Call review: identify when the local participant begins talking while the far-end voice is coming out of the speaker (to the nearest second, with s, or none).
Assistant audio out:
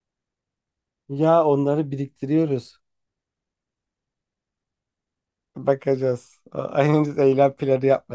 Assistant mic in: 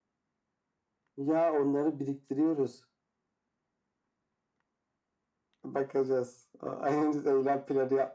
none